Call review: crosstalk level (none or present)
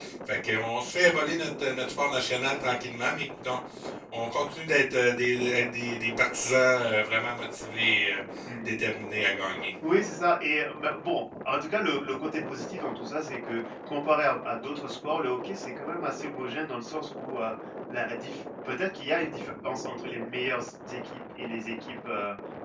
none